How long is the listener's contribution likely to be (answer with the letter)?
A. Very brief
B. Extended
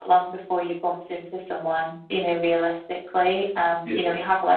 A